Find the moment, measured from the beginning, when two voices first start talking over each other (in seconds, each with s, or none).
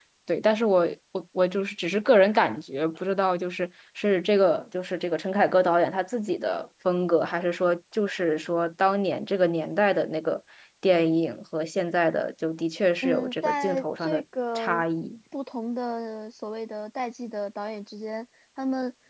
13.0 s